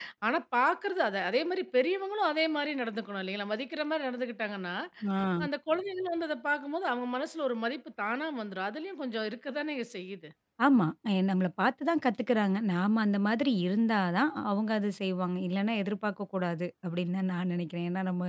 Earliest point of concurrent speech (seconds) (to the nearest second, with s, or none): none